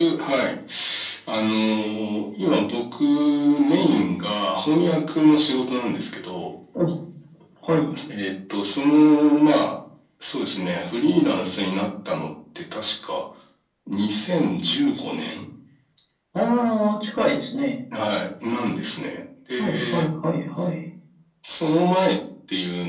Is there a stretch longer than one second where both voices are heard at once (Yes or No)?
No